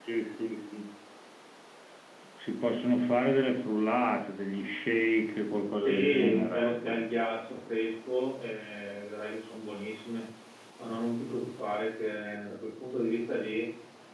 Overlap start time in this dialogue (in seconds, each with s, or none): 5.8 s